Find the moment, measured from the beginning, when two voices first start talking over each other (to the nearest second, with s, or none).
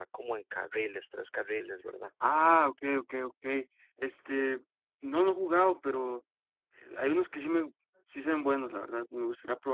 none